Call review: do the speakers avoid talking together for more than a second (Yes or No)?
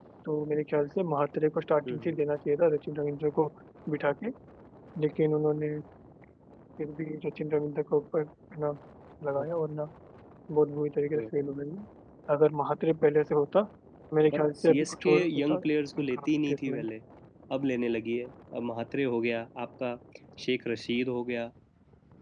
No